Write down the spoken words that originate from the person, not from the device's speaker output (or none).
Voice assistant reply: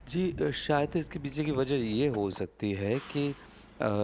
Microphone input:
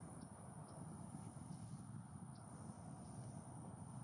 none